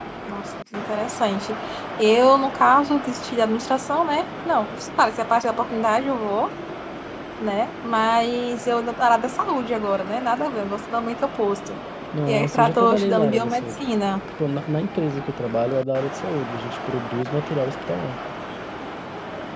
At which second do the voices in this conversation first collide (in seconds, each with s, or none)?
12.3 s